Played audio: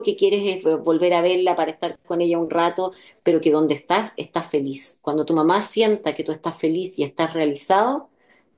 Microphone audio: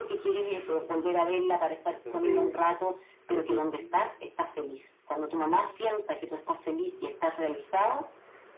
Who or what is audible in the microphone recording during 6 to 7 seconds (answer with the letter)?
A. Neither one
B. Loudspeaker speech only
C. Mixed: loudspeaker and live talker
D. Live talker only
B